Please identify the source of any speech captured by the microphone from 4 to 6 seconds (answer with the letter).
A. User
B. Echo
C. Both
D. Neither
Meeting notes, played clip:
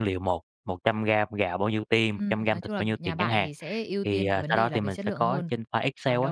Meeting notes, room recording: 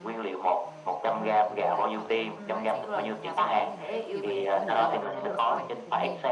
C